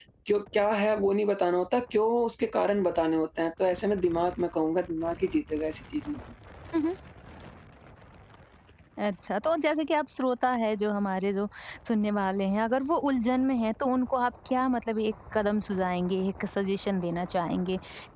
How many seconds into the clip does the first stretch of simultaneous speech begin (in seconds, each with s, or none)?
none